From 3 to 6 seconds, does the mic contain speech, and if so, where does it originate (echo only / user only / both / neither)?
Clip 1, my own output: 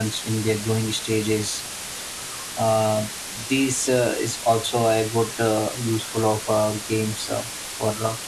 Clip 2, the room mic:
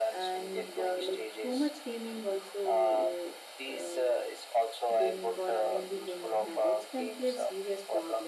both